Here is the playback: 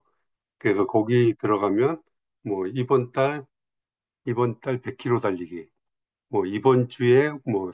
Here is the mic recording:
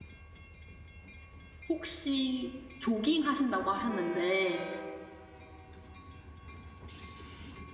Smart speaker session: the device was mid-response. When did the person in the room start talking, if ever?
1.7 s

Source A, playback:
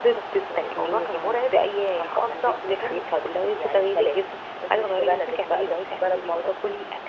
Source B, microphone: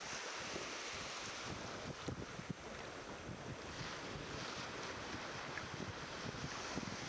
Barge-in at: none

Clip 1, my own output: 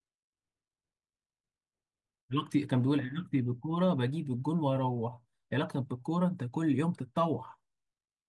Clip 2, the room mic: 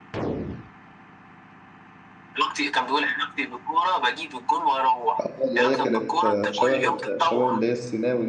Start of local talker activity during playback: 5.2 s

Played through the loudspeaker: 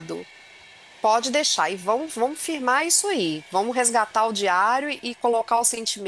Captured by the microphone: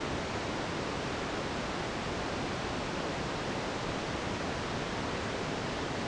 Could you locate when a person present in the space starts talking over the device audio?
none

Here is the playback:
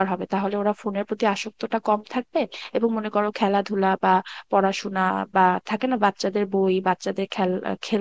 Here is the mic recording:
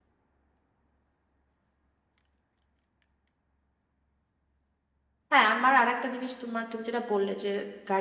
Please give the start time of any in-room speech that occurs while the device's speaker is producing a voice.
5.3 s

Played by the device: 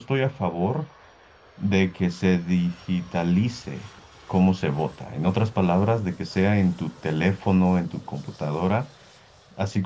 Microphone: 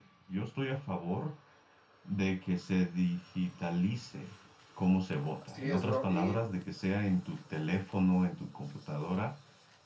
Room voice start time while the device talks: 5.4 s

